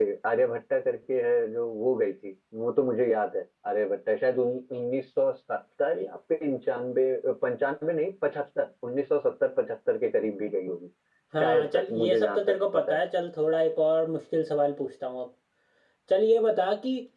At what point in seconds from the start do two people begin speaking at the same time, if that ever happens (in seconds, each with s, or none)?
11.4 s